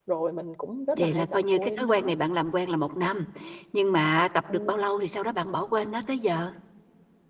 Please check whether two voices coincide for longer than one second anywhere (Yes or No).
Yes